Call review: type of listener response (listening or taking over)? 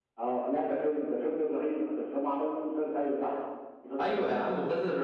taking over